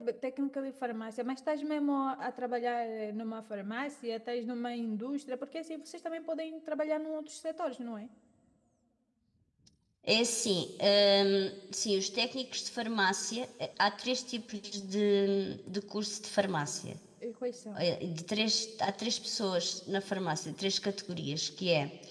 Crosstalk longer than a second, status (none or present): none